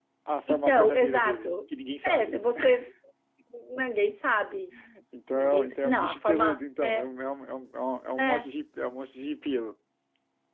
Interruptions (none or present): present